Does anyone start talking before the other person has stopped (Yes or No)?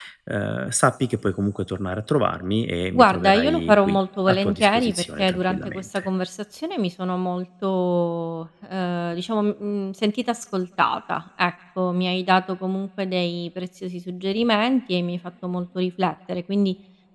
Yes